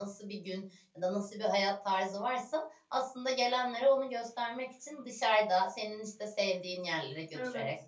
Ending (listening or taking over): listening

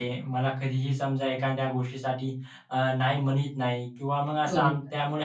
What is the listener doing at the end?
listening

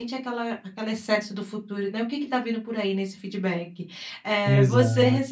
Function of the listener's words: listening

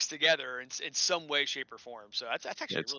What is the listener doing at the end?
listening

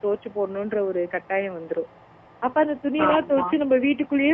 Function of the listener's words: listening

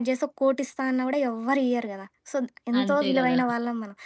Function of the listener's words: listening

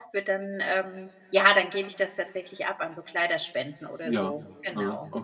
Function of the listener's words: taking over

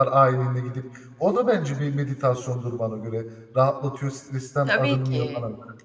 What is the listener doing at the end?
taking over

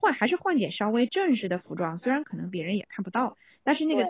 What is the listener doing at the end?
listening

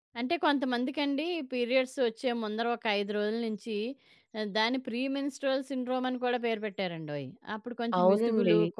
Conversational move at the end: listening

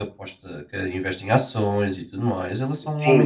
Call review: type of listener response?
taking over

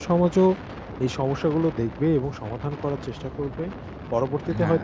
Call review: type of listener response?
listening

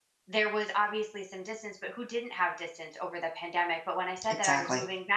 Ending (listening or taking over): listening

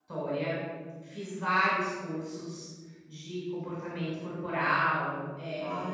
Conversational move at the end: taking over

